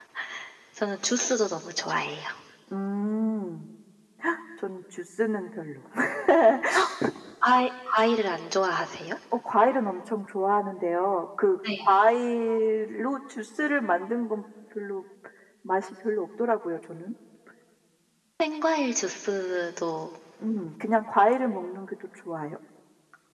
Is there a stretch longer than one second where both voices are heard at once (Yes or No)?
No